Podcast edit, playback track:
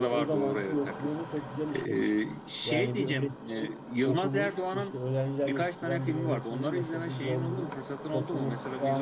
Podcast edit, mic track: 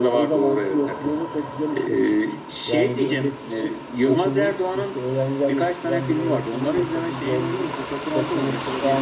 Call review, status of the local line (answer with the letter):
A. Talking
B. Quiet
B